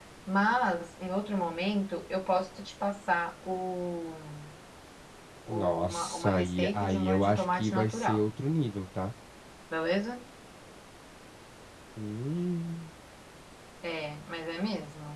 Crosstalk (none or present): present